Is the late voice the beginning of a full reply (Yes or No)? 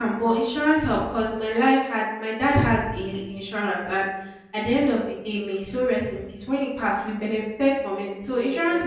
No